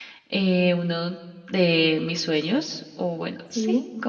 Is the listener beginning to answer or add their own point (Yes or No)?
No